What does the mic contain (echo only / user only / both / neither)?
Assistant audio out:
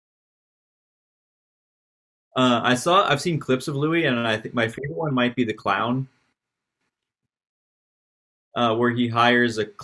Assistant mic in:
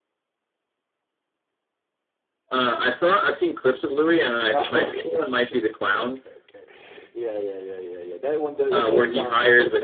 both